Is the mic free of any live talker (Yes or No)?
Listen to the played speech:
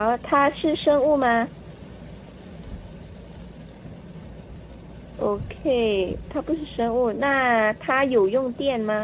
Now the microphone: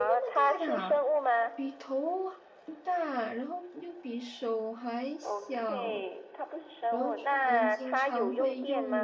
No